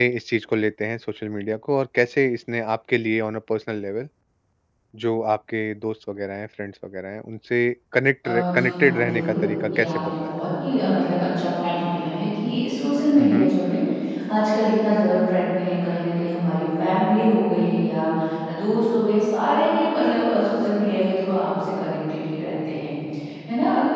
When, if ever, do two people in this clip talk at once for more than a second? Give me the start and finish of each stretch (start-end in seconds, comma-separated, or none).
8.2-10.3